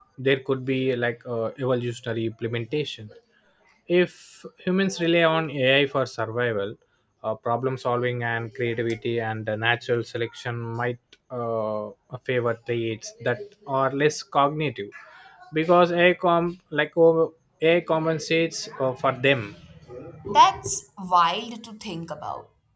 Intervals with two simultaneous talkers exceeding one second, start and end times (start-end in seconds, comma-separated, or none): none